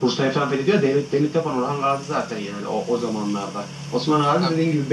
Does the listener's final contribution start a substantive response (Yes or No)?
No